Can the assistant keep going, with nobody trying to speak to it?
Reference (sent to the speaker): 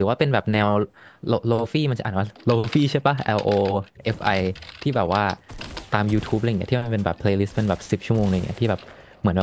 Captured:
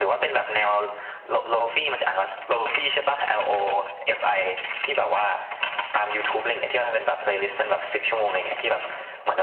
Yes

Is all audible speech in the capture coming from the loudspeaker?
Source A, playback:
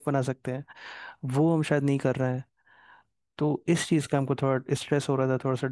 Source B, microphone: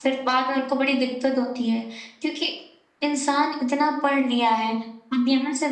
No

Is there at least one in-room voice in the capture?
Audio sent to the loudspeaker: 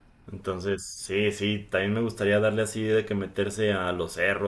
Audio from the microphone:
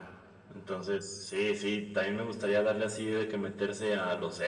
No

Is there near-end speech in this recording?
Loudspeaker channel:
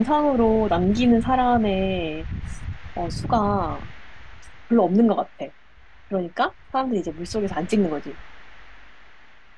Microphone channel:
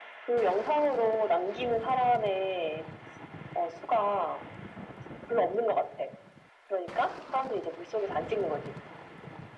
No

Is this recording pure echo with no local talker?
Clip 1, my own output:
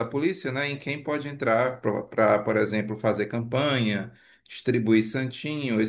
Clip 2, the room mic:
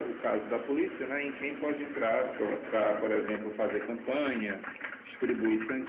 Yes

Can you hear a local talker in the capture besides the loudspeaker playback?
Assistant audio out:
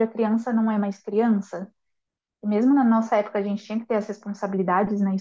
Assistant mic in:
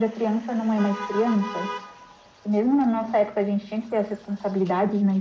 No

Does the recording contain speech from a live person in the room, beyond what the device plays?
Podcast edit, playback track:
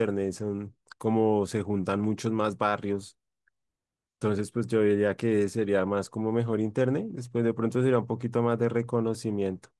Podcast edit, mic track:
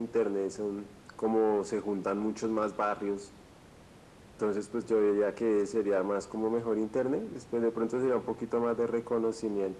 No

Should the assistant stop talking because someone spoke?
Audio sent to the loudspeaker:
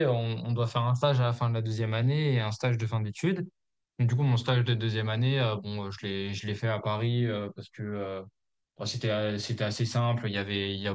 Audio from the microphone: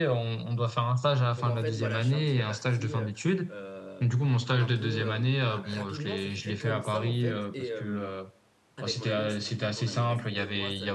Yes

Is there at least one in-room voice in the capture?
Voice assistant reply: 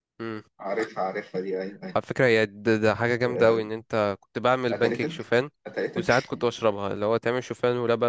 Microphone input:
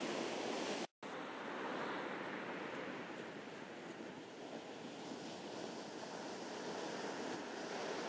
No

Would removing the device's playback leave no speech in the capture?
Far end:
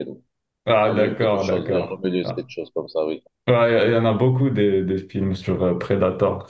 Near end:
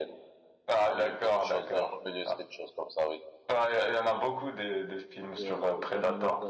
No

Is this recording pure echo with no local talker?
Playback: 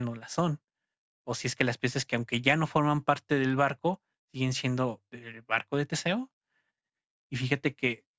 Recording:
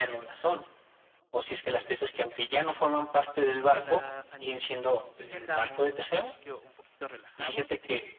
No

